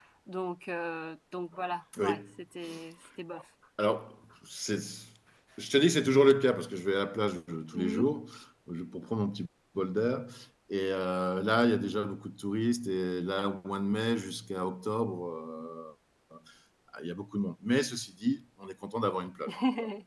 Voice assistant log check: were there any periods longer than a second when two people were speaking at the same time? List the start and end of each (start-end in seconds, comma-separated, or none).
none